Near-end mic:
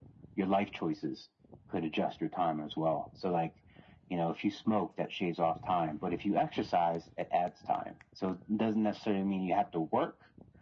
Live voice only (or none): none